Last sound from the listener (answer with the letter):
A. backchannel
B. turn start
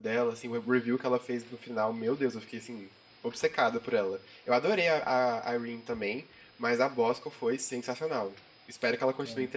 A